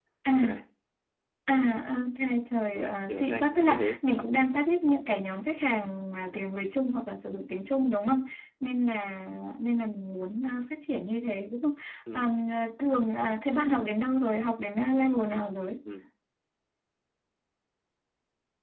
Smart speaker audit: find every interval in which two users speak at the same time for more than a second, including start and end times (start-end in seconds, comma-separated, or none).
2.7-4.0